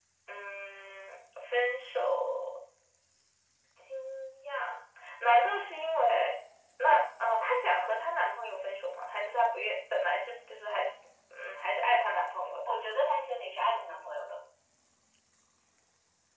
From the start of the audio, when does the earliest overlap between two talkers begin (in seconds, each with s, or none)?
none